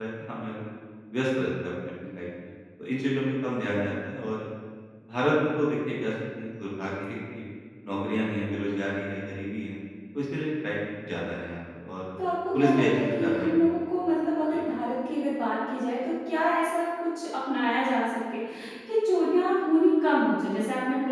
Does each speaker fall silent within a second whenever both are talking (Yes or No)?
No